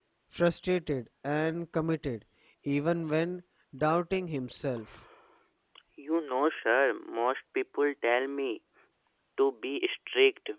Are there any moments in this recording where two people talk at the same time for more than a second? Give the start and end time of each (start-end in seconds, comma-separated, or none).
none